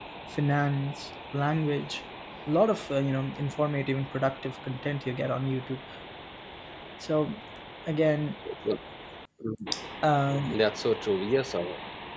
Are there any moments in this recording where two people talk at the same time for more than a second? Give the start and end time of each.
none

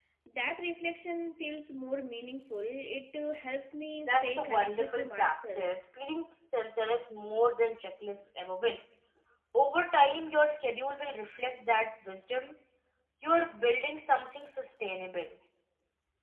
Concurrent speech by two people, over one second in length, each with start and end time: 4.0-5.6

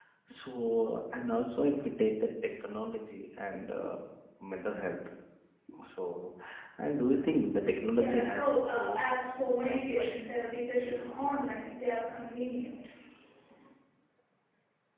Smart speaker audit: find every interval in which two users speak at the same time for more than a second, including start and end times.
7.9-10.1

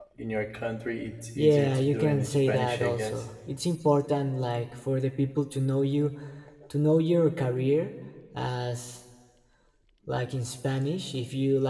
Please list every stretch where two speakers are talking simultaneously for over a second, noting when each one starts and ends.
1.4-3.2

